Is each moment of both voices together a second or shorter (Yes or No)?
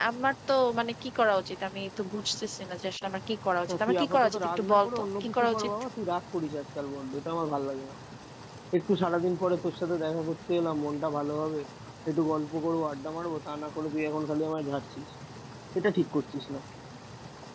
No